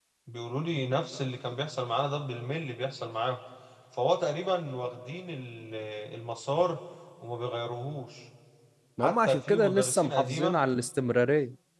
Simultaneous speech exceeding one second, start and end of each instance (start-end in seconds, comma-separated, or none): 9.0-10.6